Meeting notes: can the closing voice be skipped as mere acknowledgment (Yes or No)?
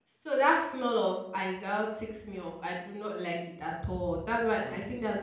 Yes